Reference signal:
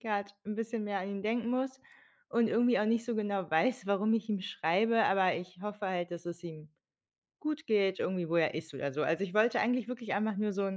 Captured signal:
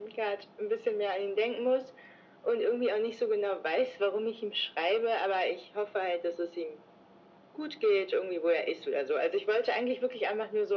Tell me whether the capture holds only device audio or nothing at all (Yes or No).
Yes